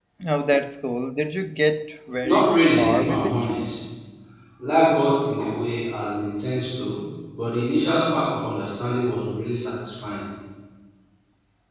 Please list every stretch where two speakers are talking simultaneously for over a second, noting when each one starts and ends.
2.2-3.5

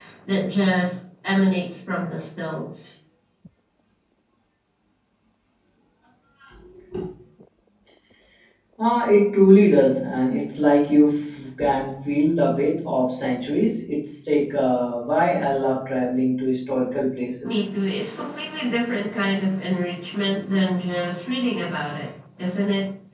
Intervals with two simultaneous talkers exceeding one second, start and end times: none

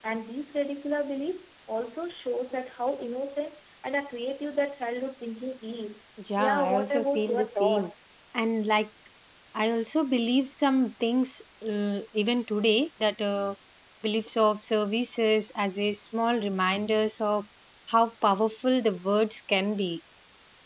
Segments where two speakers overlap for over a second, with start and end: 6.4-7.9

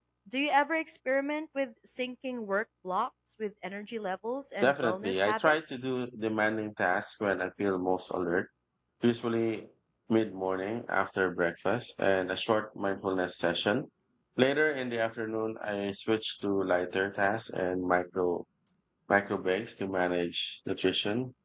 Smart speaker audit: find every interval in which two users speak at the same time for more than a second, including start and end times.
4.6-6.0

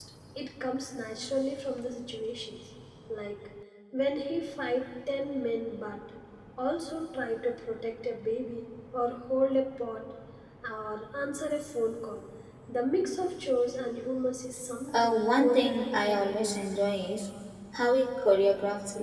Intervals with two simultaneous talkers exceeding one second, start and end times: 14.9-16.6

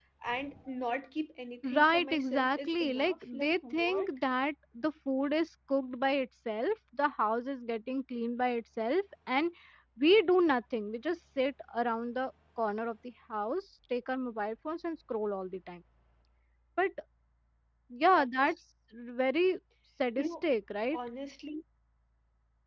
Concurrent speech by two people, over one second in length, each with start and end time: 1.7-4.1

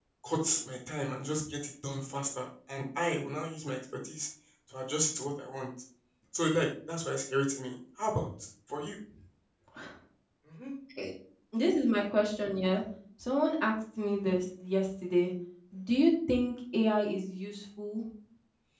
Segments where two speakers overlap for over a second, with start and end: none

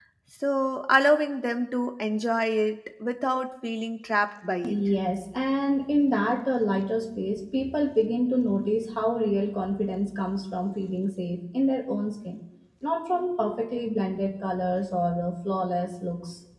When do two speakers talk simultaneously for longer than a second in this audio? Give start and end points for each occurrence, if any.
none

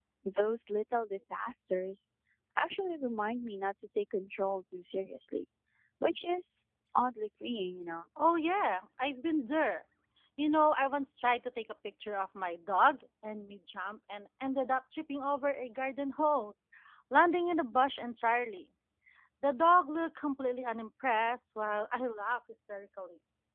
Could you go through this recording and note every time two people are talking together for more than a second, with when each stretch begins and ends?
none

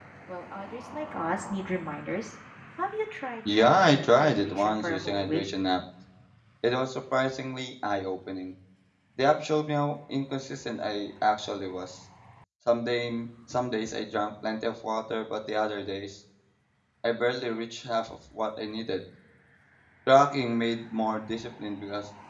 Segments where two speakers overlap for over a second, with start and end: 3.5-5.4

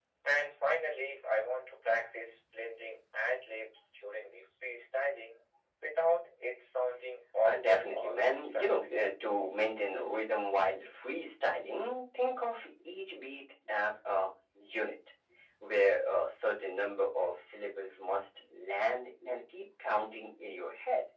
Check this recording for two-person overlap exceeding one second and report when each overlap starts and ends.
7.4-8.9

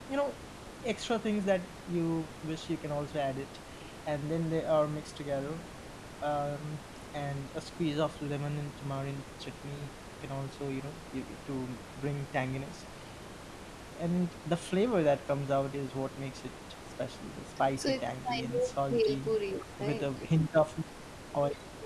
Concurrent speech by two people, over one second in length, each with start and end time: 17.8-19.4

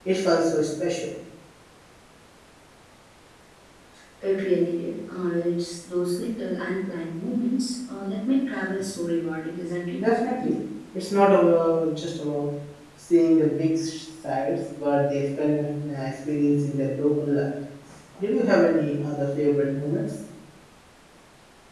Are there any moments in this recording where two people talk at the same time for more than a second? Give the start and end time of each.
none

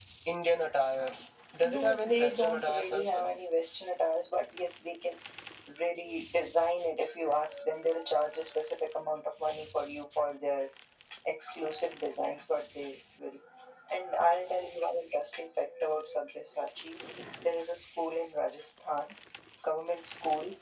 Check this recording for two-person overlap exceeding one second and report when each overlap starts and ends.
1.6-3.3

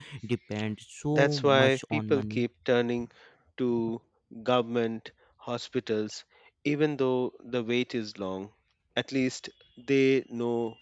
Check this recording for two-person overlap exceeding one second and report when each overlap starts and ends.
1.1-2.5

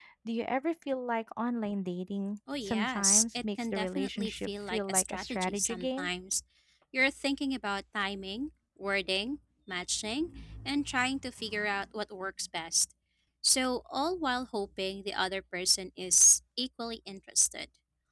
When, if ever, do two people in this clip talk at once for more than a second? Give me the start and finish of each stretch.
2.6-6.1

